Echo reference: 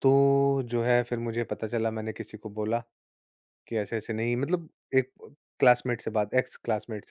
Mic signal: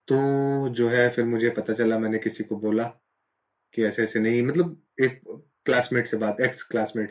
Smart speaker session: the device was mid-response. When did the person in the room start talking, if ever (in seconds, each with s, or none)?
none